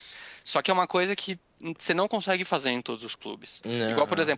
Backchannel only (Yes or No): Yes